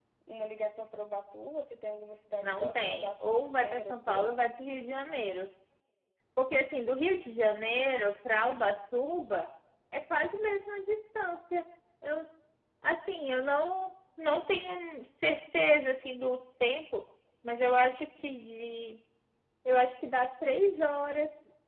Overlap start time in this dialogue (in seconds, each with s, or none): 2.4 s